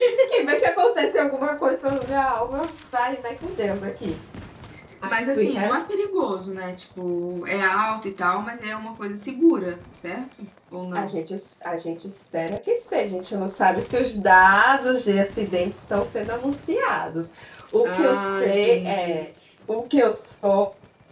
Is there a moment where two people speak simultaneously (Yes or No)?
Yes